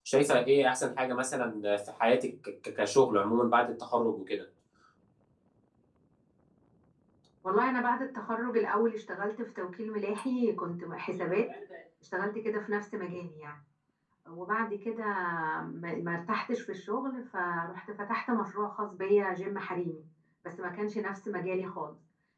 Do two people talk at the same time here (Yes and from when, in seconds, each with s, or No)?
No